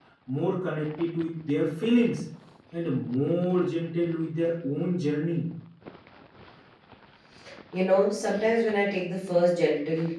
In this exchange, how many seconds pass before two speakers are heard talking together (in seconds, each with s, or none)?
none